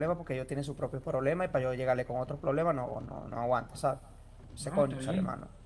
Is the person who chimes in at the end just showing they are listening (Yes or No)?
No